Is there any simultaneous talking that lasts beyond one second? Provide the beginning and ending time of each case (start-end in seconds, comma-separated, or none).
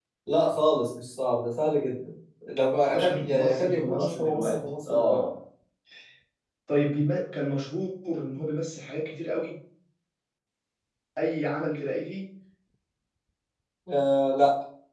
3.0-5.2